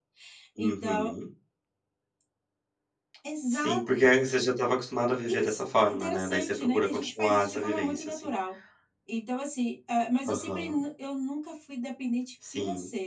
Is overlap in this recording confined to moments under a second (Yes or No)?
No